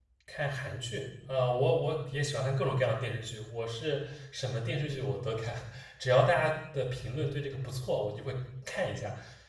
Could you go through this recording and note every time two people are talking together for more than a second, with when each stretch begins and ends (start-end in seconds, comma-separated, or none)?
none